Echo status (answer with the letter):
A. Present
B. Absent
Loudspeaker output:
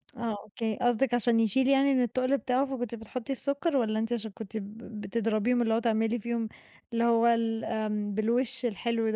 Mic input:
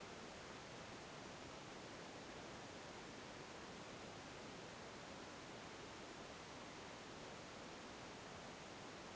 B